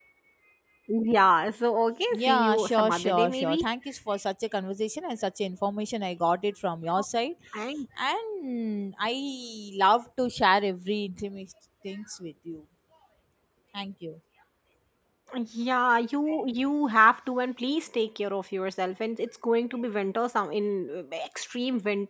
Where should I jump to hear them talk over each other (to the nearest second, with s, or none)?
2 s